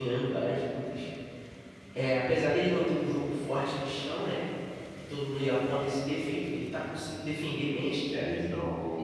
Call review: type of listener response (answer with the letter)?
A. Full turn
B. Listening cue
A